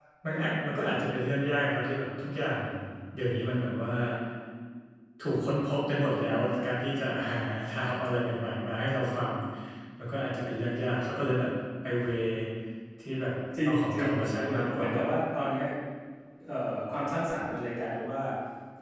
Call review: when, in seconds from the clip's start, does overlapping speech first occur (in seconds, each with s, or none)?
13.7 s